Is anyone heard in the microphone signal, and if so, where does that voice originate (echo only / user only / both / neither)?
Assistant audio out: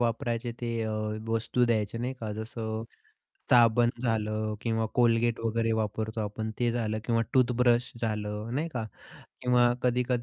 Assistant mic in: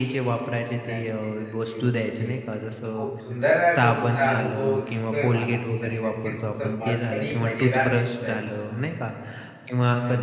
both